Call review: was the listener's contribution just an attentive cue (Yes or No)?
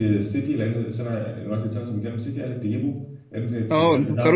No